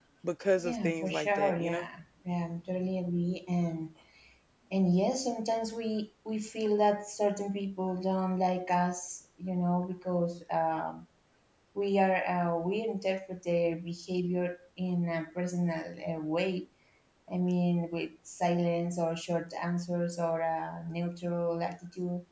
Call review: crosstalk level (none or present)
present